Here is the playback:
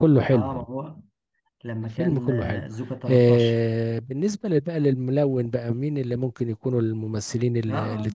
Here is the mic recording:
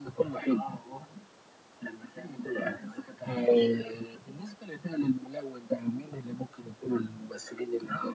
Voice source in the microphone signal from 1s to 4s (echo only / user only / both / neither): echo only